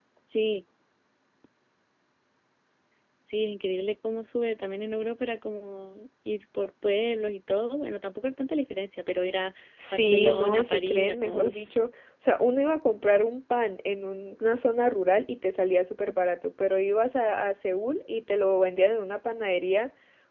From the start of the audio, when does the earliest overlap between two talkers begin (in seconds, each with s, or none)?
9.8 s